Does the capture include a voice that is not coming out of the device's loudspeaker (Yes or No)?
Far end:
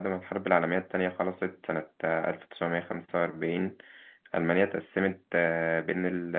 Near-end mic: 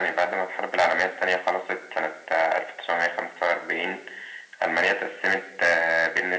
No